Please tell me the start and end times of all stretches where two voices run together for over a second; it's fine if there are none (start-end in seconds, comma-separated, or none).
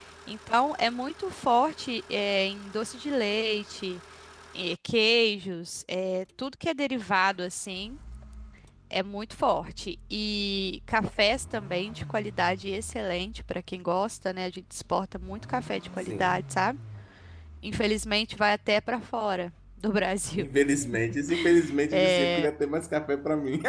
none